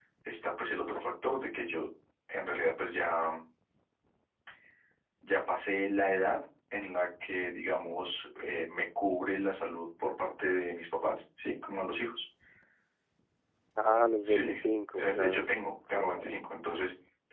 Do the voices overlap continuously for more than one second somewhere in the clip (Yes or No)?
No